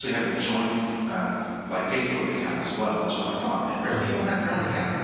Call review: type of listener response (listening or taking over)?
listening